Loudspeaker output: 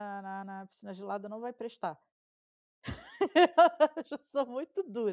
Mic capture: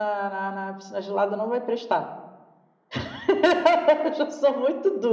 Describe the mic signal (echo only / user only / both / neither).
echo only